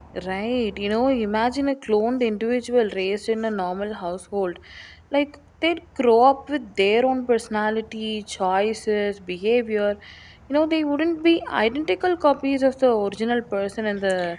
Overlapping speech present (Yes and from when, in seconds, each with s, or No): No